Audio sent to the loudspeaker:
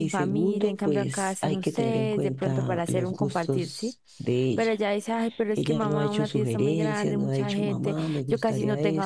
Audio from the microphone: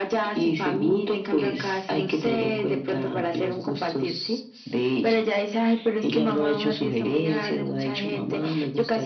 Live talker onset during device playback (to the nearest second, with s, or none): none